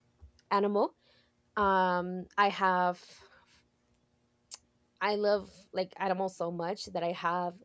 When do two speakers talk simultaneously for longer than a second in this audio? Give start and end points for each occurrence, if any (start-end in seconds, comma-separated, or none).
none